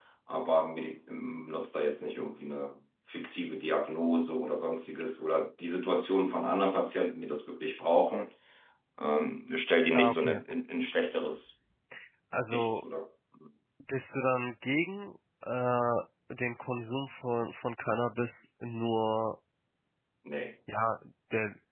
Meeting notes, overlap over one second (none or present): none